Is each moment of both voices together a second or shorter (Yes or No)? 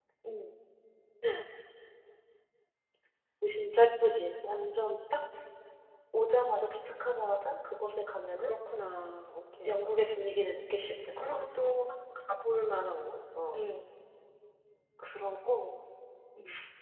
Yes